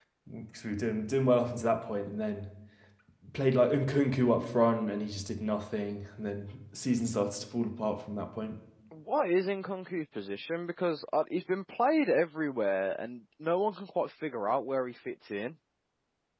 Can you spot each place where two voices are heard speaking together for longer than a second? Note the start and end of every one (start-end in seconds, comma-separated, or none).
none